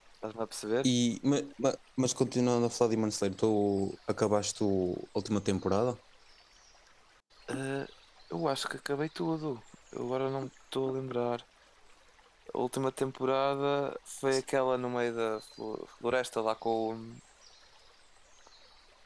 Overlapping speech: No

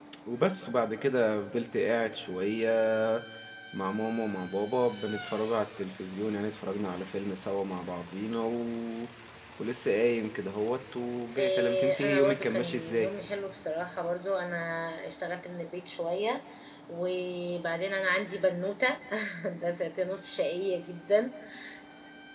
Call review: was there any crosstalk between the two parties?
Yes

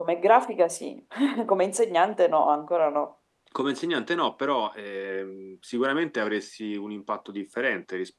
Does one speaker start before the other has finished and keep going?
No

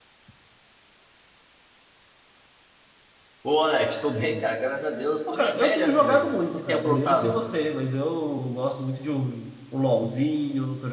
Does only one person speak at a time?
No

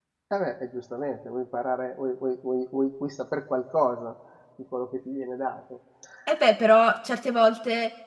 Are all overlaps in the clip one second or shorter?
Yes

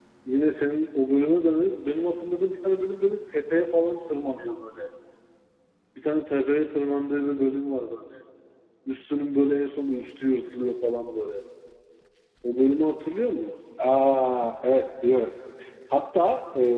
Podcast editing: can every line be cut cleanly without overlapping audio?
Yes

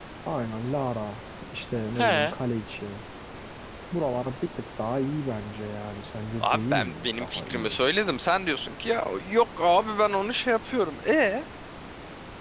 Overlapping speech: Yes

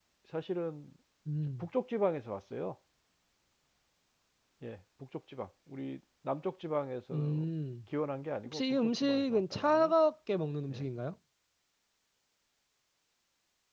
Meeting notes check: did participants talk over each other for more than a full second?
Yes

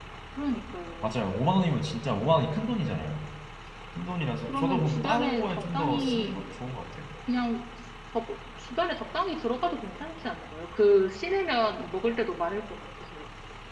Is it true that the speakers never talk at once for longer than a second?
No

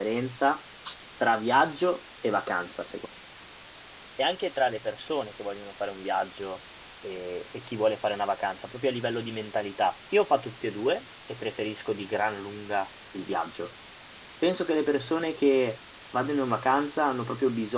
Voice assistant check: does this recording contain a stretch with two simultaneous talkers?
No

